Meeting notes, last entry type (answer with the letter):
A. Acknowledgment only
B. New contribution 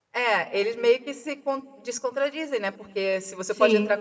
A